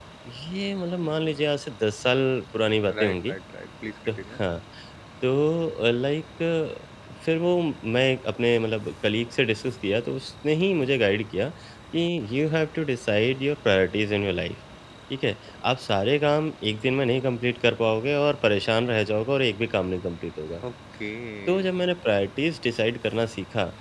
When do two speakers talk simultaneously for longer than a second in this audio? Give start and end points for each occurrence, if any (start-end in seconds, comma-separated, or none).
none